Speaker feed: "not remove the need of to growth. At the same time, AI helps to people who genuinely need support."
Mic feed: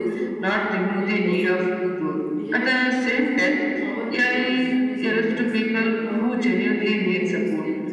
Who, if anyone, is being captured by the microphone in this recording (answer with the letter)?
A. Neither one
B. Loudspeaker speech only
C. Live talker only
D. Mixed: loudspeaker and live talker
D